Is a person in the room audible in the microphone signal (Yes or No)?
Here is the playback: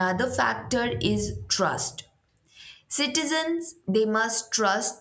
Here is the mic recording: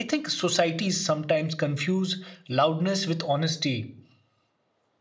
Yes